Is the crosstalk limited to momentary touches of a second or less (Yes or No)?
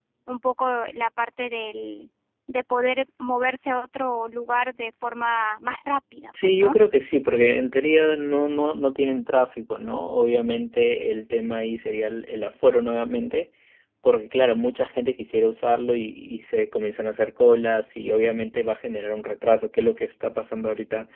Yes